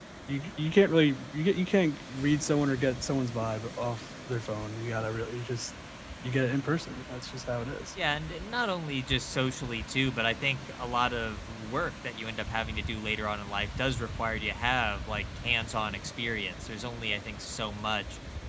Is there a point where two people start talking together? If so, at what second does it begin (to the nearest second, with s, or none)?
none